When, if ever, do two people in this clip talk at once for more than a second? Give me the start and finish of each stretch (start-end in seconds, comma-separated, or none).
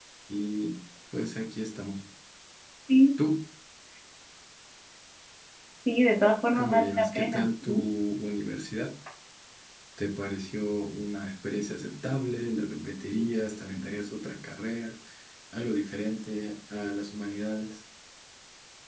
6.6-7.8